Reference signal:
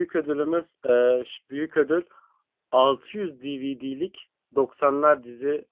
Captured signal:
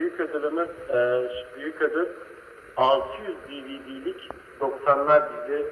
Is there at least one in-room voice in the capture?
No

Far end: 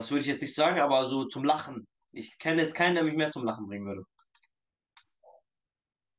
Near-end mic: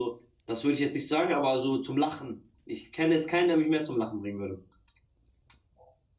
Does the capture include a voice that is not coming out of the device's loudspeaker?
No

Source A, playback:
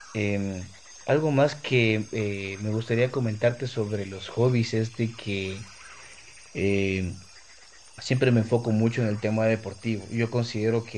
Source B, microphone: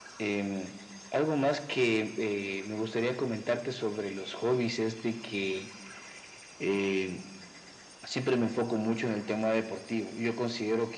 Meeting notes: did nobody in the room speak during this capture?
Yes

